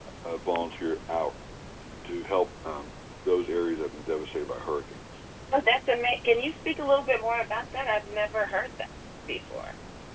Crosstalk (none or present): none